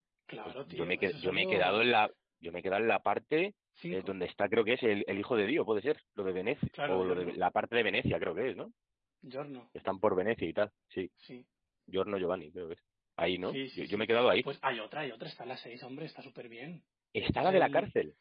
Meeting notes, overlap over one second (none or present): present